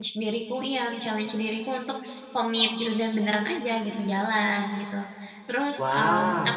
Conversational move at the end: listening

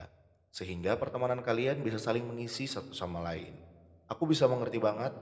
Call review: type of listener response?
listening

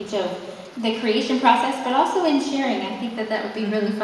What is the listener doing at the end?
taking over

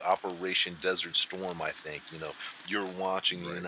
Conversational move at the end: listening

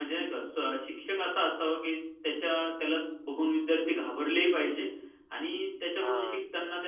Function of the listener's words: listening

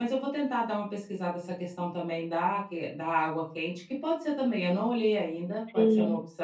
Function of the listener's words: taking over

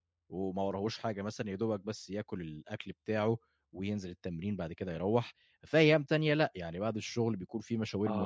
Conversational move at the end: taking over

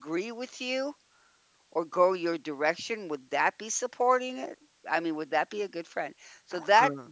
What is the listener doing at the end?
listening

